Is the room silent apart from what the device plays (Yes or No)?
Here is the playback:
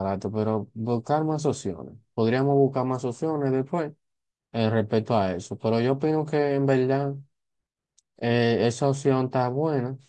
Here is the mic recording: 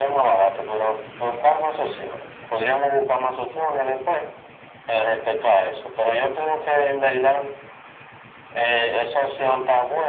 Yes